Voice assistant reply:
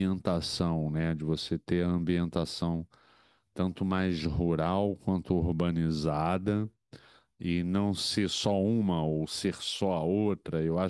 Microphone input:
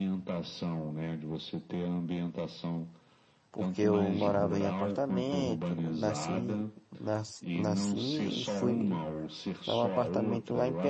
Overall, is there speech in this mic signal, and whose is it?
both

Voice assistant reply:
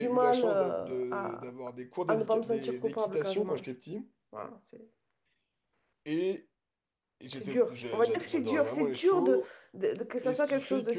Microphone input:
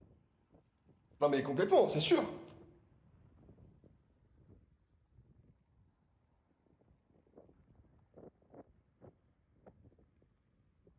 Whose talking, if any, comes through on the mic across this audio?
user only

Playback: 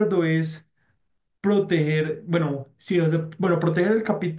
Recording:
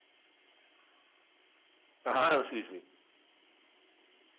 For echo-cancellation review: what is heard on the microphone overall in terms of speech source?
user only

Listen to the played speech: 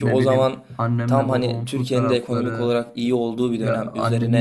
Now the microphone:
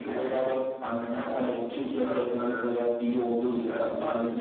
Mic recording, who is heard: echo only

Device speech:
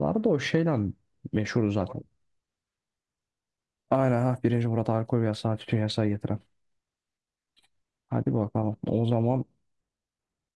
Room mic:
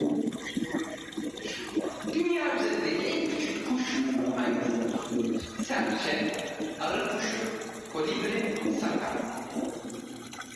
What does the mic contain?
both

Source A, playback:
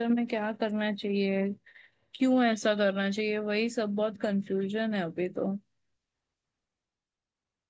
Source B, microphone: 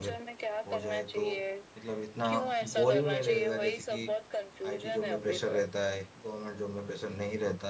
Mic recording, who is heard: both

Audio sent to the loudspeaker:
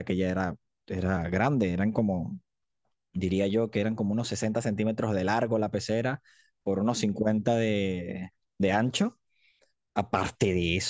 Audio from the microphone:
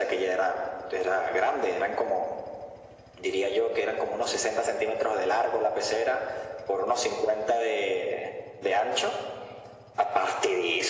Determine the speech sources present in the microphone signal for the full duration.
echo only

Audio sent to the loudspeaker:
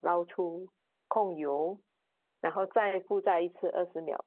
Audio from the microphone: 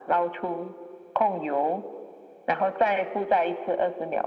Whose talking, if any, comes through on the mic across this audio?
echo only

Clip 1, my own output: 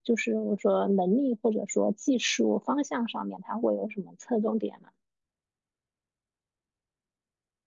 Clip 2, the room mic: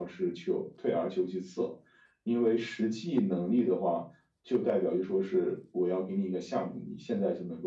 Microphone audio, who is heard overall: user only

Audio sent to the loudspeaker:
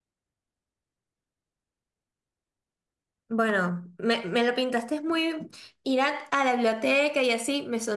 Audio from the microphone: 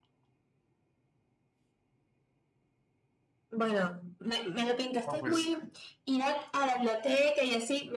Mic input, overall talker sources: both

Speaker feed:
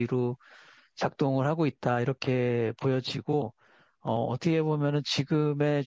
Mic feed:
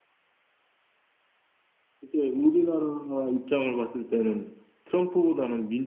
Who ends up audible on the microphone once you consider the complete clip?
user only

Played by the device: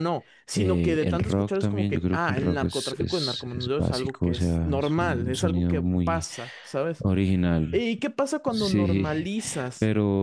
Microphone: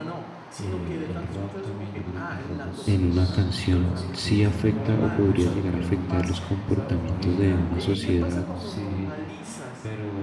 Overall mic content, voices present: both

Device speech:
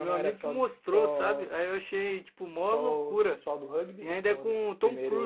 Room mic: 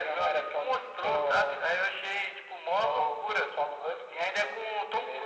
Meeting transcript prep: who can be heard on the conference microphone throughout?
echo only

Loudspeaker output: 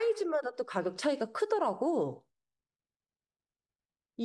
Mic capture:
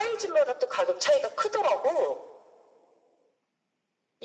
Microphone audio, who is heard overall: echo only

